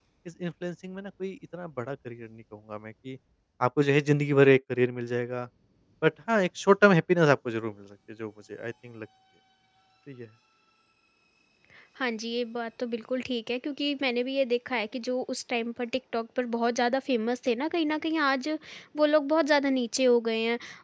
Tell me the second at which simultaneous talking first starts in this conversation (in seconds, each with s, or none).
none